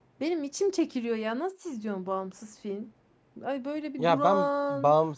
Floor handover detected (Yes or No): Yes